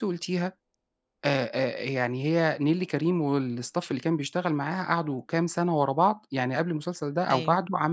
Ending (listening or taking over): listening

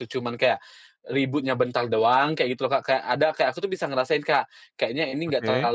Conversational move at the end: listening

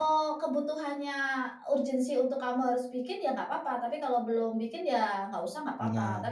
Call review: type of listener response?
listening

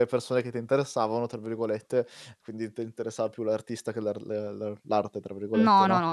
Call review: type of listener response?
taking over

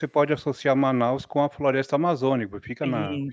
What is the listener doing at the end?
taking over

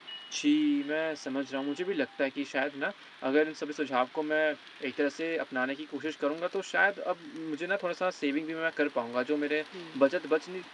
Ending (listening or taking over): listening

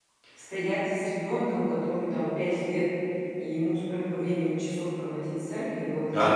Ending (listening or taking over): taking over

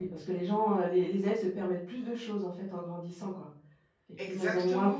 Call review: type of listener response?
listening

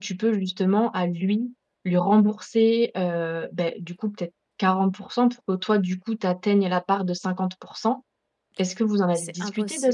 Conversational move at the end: taking over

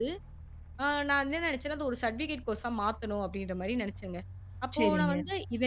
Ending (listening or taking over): listening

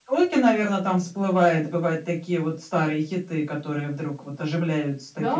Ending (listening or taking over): taking over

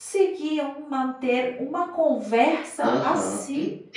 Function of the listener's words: taking over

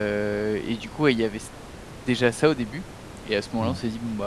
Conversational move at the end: listening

